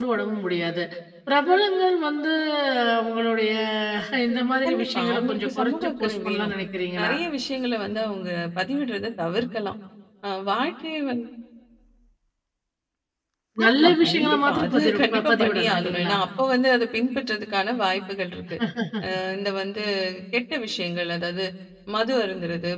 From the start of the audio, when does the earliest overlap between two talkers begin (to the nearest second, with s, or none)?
5 s